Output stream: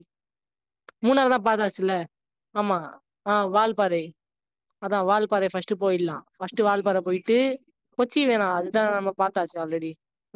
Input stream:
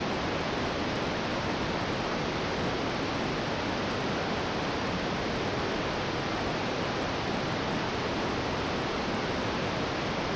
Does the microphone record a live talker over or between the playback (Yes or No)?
No